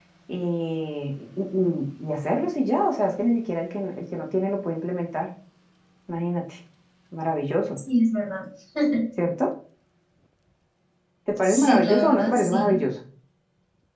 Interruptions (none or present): present